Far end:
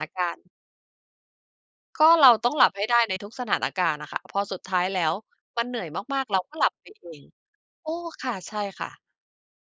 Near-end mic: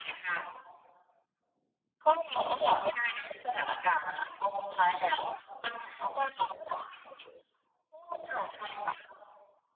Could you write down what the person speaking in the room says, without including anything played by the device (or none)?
none